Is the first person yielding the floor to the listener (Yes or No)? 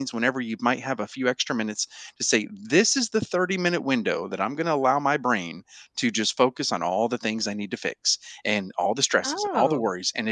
No